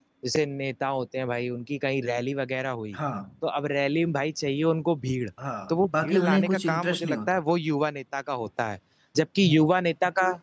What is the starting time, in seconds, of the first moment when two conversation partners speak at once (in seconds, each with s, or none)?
5.7 s